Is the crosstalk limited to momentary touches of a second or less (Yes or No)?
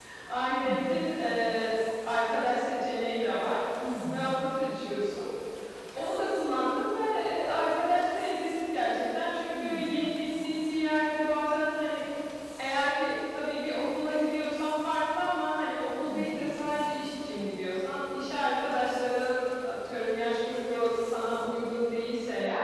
Yes